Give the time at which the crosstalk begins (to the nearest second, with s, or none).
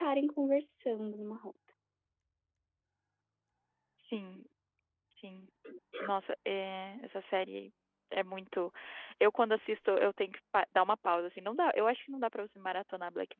none